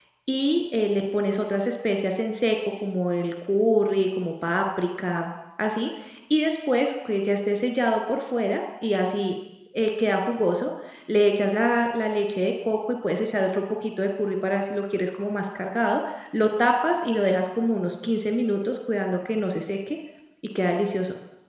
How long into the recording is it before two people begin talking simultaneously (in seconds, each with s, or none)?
none